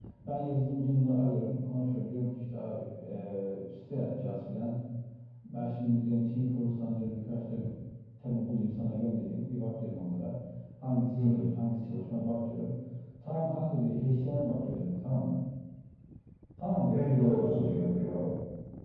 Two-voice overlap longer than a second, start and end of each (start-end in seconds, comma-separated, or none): 16.9-18.1